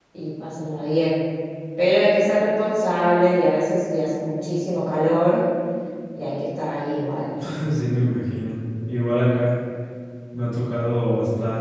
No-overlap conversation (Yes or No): Yes